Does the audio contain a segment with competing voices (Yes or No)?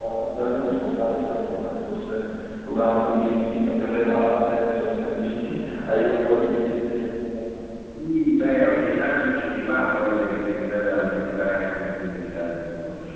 No